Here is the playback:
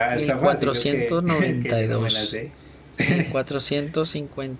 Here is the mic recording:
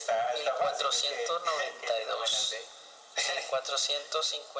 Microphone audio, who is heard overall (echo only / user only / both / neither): echo only